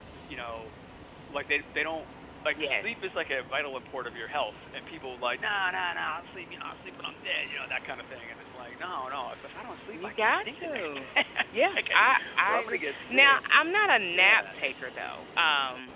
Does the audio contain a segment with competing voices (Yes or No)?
Yes